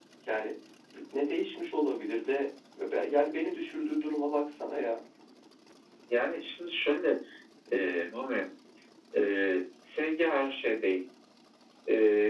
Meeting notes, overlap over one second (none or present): none